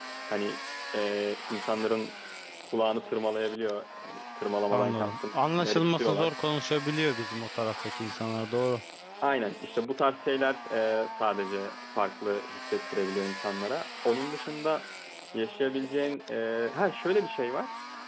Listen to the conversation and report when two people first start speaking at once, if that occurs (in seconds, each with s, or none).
4.7 s